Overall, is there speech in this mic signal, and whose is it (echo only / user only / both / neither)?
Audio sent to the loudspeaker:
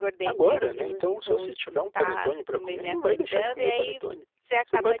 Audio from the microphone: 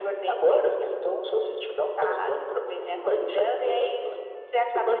echo only